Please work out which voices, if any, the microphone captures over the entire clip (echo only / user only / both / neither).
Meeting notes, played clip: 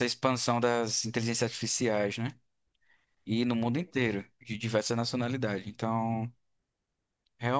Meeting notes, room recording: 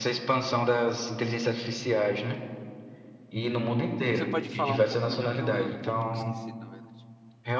both